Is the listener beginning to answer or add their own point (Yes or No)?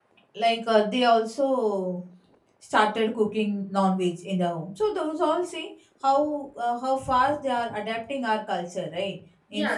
Yes